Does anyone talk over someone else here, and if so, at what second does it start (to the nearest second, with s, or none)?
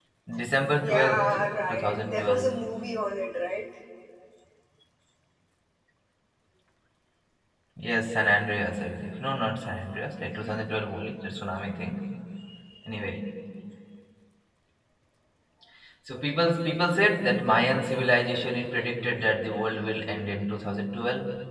1 s